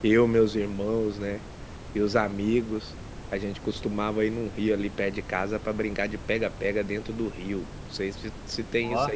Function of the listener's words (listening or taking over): listening